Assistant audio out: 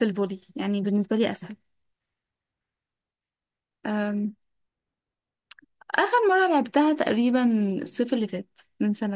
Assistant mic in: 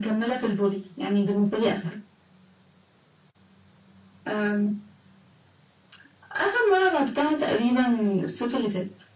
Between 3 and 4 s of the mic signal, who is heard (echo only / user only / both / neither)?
neither